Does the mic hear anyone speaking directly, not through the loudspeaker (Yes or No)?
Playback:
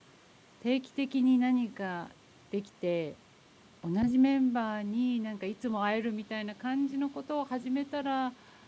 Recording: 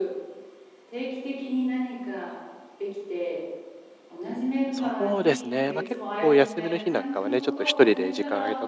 Yes